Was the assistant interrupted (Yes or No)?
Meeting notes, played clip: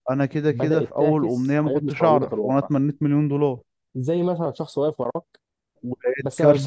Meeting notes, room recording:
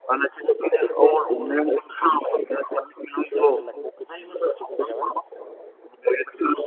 Yes